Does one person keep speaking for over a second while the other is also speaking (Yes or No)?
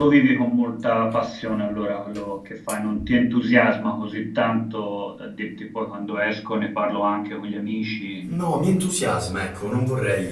No